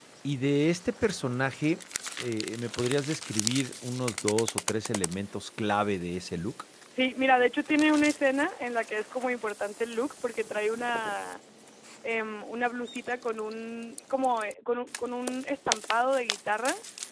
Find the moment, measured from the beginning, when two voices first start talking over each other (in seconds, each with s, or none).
none